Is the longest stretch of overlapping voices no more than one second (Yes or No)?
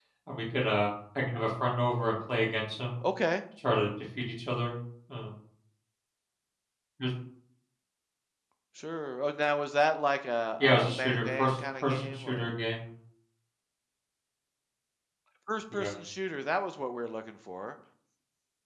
No